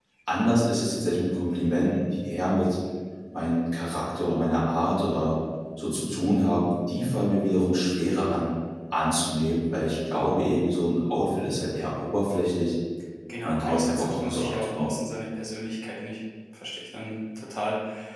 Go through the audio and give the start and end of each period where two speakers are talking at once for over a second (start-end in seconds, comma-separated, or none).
13.4-14.9